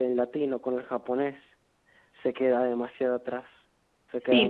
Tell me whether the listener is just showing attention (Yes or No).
No